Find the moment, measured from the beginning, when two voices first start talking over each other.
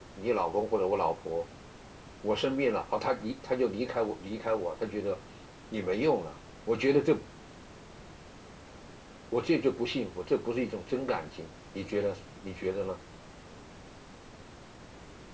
none

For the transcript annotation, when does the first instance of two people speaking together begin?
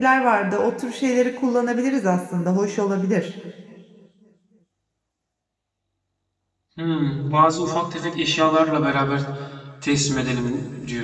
none

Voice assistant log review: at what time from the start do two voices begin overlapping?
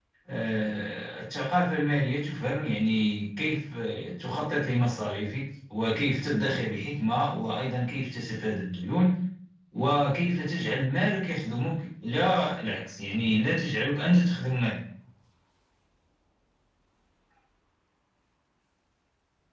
none

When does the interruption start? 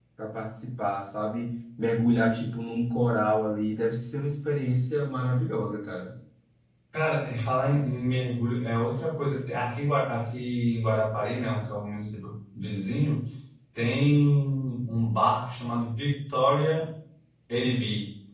none

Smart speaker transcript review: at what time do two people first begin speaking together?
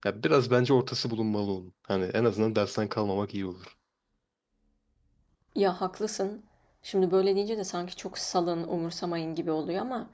none

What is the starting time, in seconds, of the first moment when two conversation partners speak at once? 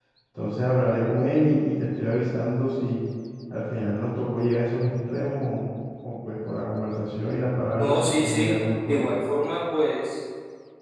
7.7 s

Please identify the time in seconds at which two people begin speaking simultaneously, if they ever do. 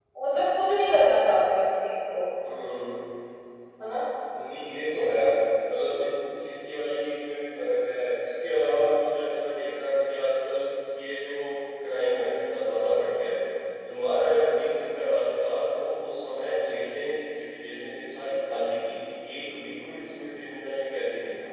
none

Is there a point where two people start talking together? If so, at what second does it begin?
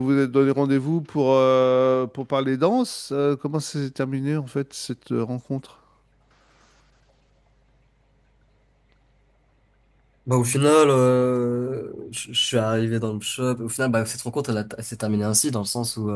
none

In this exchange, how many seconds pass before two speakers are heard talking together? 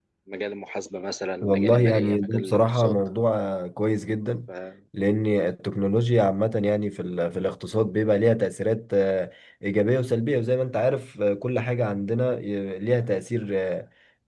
1.4 s

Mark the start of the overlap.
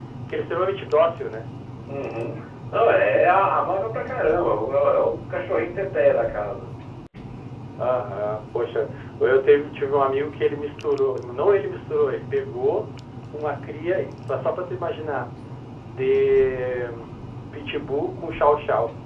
none

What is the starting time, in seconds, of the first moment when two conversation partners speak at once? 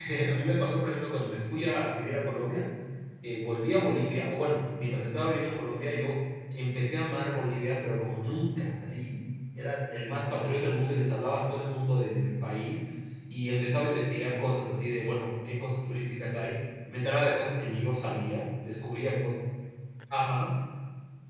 none

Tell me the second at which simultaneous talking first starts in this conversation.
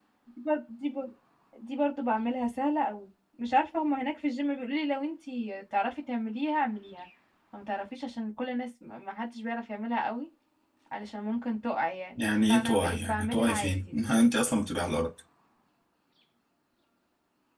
12.2 s

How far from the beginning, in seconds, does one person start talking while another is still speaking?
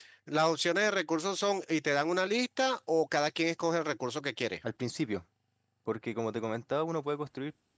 none

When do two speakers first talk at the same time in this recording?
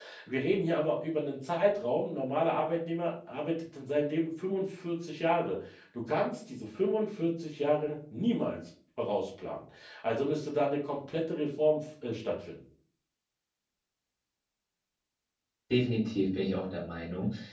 none

